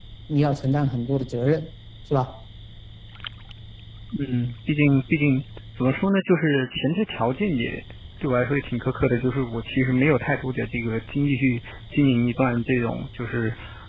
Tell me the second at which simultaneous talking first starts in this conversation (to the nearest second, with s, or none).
none